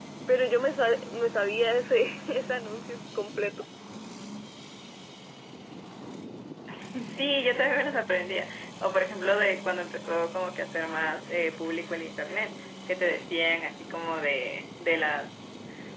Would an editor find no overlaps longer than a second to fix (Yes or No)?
Yes